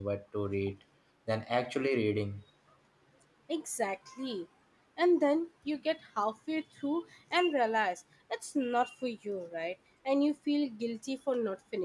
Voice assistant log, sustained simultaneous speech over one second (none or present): none